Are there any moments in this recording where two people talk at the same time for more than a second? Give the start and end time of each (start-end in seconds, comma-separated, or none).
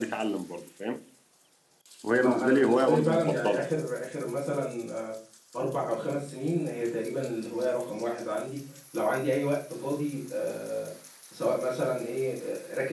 2.1-3.7